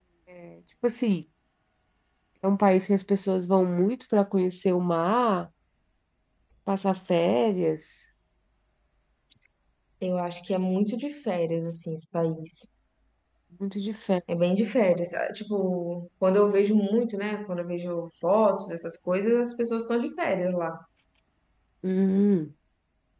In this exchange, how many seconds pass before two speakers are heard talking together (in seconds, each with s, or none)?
none